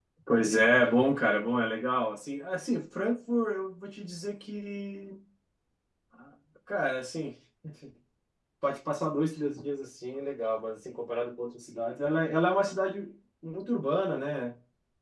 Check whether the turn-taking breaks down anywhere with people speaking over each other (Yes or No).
No